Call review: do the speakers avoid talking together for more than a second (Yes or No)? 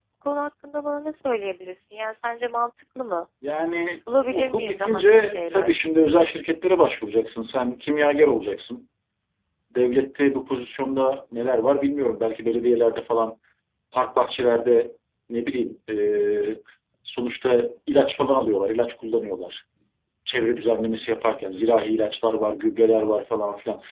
No